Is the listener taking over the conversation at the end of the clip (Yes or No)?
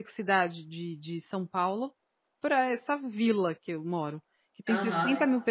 No